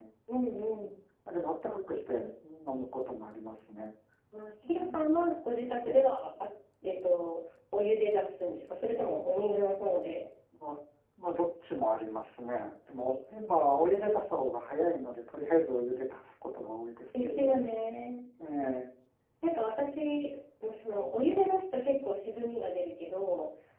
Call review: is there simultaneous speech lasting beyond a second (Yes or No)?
No